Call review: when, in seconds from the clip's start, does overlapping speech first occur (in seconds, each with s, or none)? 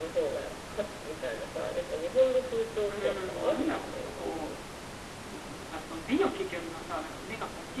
2.9 s